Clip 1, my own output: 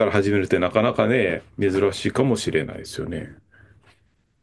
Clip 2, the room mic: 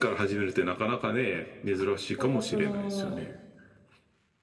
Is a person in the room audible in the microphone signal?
Yes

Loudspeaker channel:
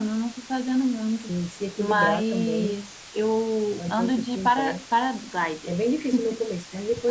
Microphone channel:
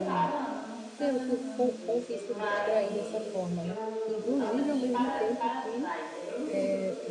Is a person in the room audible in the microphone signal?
Yes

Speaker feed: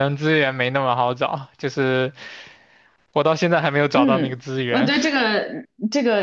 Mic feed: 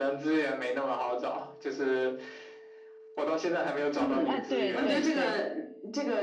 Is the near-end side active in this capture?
Yes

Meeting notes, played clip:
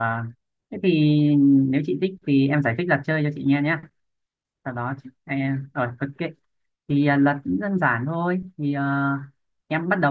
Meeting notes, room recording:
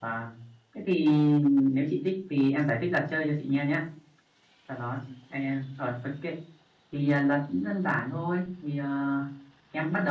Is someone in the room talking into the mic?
No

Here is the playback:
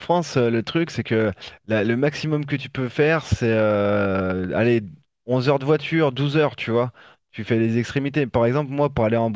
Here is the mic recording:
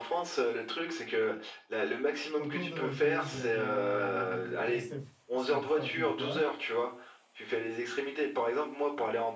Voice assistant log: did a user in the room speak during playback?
Yes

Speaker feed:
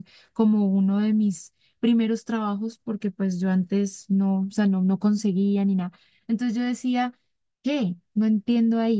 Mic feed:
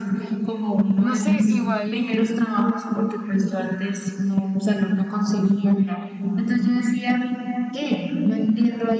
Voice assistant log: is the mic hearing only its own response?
No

